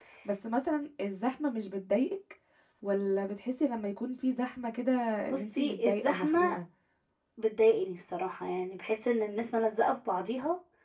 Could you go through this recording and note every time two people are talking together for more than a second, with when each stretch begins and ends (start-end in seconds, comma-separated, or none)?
5.3-6.5